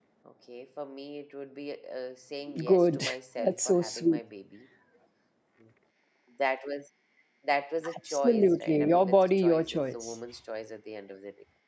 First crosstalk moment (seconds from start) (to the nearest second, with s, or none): 3 s